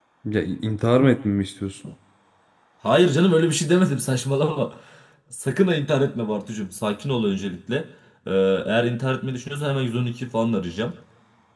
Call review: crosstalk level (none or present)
none